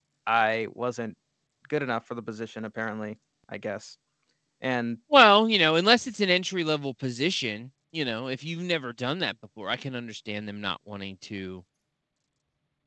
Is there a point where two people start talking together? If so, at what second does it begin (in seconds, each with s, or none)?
none